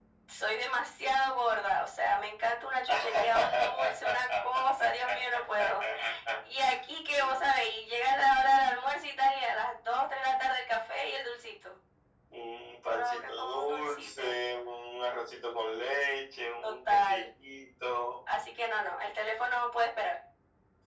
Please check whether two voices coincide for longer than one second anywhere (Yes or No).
Yes